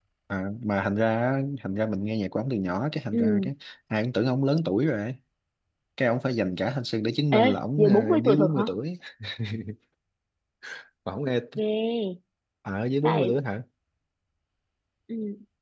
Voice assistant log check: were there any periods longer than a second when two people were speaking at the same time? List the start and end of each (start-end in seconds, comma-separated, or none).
7.3-8.6